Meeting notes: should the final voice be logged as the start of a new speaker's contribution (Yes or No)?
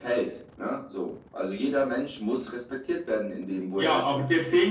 Yes